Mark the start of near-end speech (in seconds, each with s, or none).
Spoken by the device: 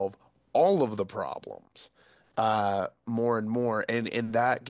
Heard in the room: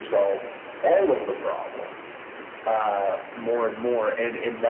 none